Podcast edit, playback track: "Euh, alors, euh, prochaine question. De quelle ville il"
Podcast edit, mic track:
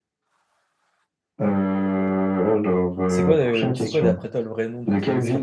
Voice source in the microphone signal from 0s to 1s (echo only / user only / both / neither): neither